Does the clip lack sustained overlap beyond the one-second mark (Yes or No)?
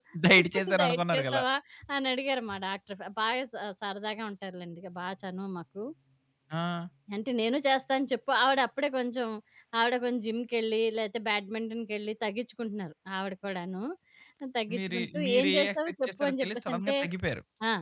No